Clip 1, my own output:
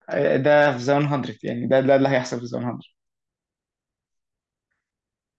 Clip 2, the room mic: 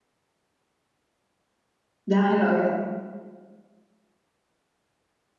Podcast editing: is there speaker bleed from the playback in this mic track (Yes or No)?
No